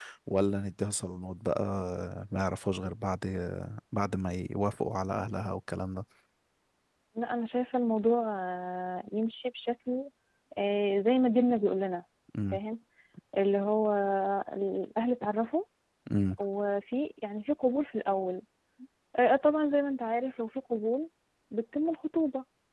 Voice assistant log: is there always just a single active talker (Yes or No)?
Yes